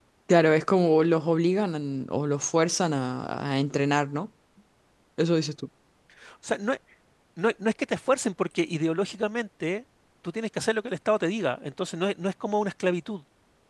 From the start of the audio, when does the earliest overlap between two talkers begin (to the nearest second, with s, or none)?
none